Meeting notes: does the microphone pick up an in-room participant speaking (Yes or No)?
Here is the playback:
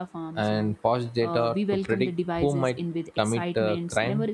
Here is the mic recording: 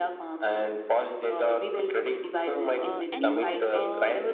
Yes